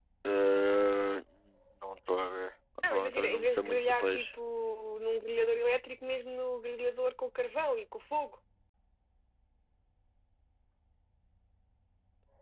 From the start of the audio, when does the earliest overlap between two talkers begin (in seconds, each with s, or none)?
2.8 s